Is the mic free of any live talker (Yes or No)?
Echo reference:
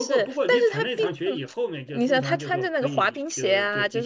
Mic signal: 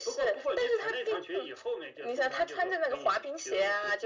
Yes